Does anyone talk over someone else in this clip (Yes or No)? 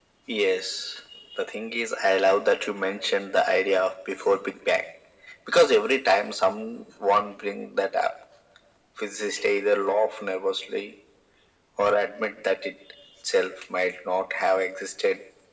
No